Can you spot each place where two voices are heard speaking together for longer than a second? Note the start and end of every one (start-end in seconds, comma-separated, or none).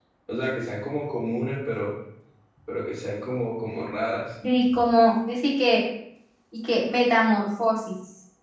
none